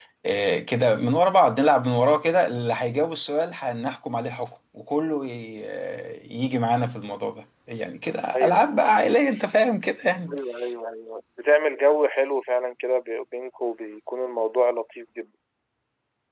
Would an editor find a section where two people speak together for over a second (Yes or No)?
No